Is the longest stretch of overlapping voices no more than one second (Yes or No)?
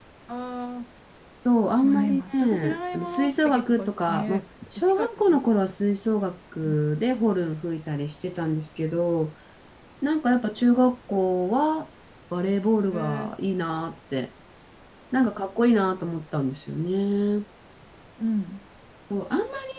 No